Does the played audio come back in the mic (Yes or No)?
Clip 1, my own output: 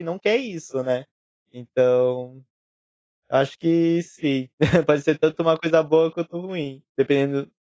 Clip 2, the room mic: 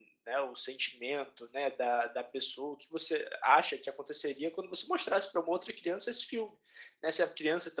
No